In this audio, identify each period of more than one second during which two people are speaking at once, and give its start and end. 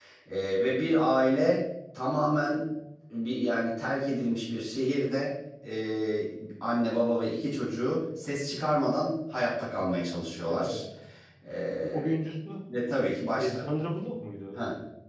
none

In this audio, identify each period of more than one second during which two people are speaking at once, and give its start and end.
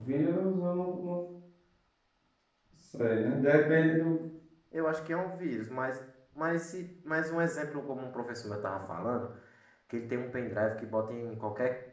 none

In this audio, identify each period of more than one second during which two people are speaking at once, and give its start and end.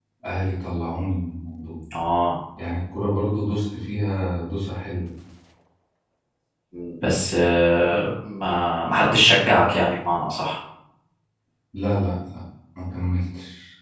none

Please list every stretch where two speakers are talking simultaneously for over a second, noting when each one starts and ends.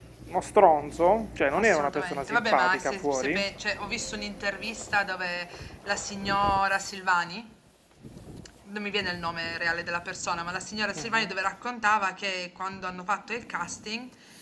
1.5-3.5

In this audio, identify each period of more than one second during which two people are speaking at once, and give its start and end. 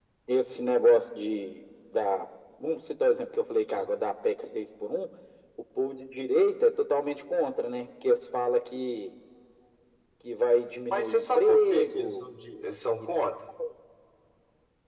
10.9-12.2

